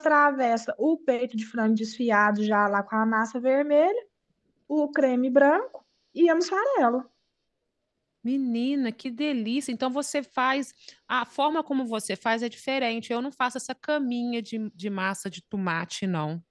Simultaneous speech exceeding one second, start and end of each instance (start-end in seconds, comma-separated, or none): none